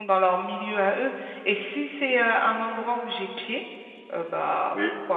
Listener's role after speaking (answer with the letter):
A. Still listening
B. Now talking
A